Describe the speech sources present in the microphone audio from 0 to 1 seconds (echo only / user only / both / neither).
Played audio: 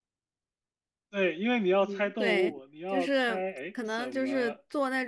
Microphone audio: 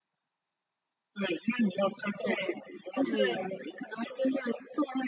neither